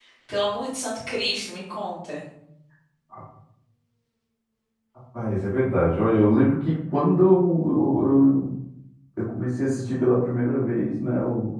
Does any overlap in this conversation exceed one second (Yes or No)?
No